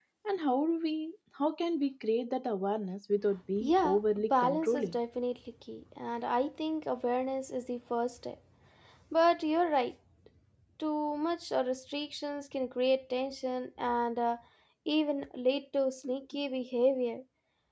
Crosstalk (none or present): present